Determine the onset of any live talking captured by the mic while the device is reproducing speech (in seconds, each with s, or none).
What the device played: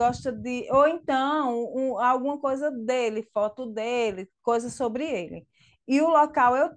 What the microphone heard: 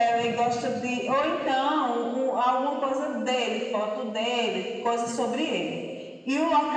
none